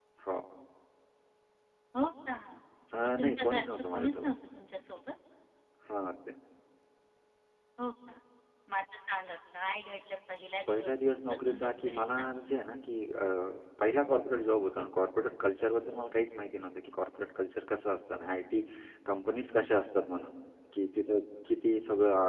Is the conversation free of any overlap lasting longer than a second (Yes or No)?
No